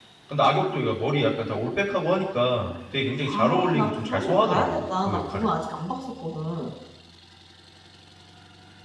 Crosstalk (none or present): present